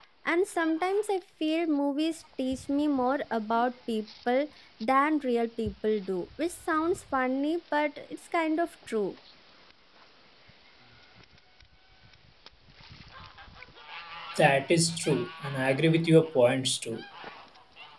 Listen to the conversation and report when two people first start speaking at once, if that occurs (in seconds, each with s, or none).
none